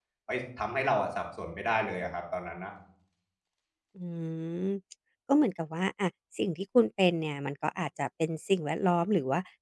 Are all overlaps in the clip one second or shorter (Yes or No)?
Yes